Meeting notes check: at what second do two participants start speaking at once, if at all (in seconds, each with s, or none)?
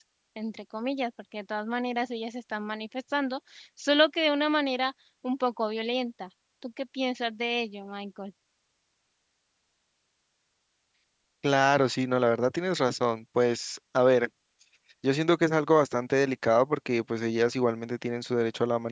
none